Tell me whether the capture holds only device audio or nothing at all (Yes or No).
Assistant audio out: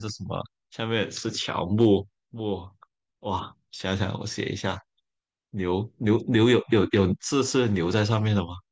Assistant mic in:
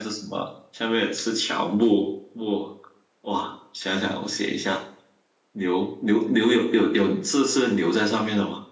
Yes